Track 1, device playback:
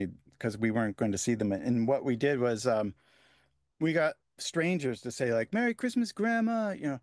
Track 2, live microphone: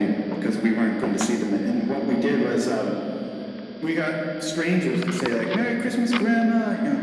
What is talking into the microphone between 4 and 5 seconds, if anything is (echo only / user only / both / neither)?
echo only